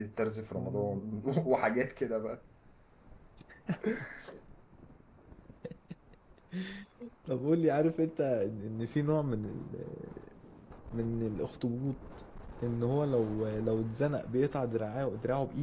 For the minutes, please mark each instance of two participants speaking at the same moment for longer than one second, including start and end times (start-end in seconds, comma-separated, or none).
none